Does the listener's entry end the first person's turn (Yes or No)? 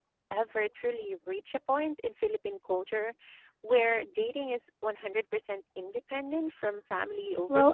Yes